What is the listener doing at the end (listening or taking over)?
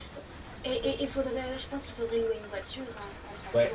taking over